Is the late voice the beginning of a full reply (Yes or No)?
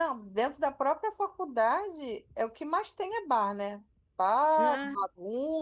No